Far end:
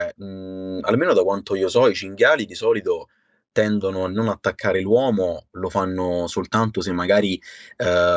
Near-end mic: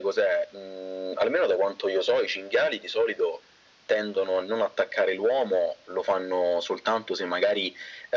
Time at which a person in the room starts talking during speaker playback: none

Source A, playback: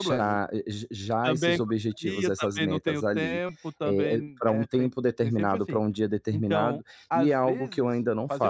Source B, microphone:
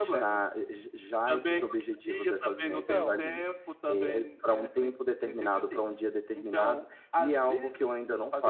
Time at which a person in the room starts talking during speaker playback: 2.7 s

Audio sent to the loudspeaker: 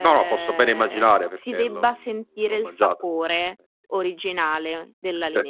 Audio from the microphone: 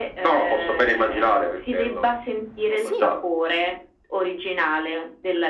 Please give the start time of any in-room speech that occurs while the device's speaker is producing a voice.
2.7 s

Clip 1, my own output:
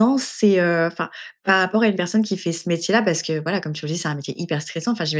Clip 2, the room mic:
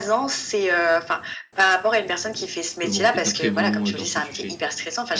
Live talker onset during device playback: 2.8 s

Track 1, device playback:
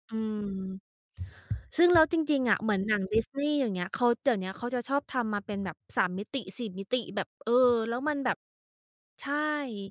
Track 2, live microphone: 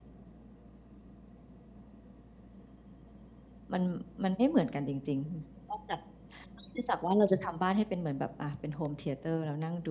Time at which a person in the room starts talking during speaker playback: 3.7 s

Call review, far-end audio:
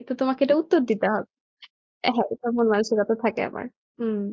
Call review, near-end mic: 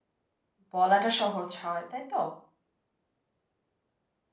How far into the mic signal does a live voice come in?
0.7 s

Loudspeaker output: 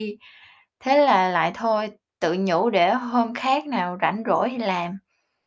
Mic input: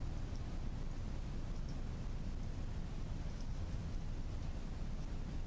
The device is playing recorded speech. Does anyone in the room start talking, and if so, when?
none

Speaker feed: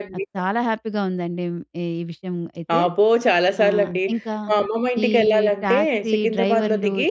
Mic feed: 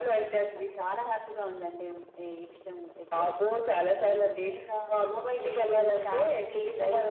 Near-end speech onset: none

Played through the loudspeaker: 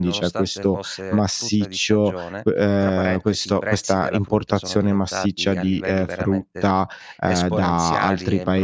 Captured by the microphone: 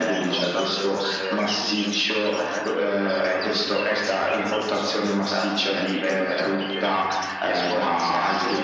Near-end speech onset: none

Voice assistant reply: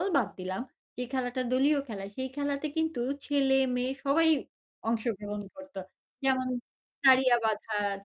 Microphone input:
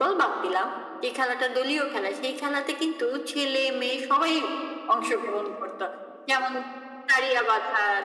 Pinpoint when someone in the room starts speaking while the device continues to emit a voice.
none

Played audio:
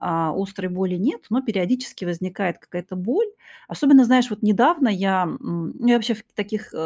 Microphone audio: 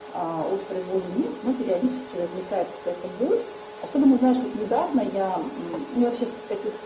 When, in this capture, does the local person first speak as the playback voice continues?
none

